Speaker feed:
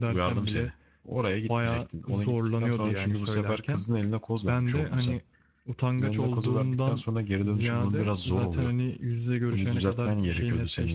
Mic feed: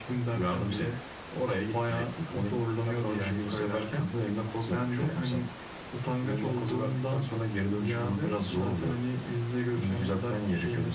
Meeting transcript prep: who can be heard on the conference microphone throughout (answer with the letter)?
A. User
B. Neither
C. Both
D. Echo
D